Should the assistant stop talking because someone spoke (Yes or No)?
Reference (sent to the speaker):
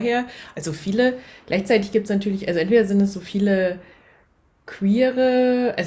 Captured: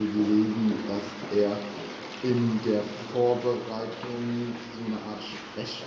Yes